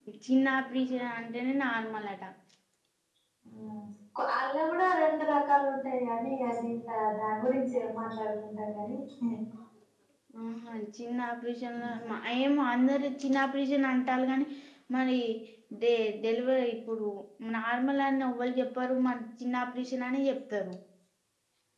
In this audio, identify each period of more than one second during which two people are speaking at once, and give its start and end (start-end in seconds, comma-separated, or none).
none